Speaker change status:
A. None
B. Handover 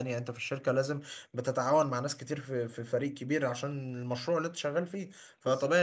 A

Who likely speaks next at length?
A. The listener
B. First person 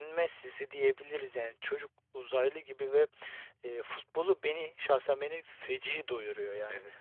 A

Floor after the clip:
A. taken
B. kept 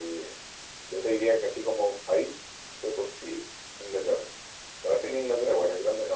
B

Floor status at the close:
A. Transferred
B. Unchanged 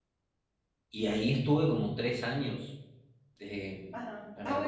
A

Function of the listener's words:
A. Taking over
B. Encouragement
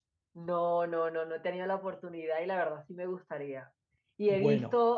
B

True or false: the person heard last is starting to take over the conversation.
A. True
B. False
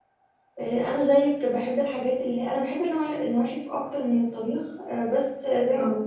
B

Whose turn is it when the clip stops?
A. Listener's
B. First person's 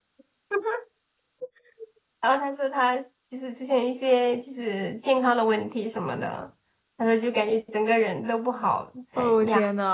A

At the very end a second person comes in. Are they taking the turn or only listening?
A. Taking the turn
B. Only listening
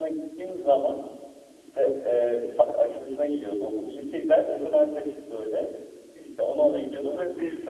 B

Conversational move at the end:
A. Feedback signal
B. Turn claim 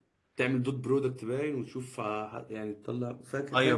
B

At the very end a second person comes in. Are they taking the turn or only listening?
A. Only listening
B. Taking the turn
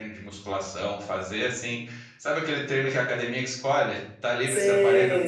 B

